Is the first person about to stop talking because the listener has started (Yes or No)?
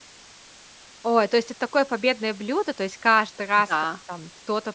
No